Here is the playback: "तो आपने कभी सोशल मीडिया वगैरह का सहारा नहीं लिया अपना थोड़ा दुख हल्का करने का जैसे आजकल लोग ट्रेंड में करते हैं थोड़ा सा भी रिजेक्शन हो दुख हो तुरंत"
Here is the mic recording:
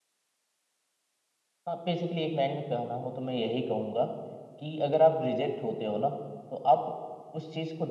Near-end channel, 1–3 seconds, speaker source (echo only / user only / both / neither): user only